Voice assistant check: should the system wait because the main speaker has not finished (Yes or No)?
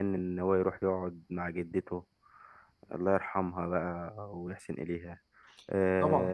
No